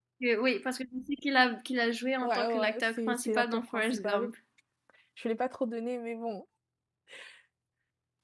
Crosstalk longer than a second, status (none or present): present